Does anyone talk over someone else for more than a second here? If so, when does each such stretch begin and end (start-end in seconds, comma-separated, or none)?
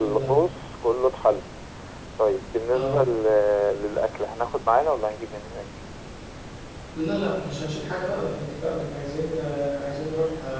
none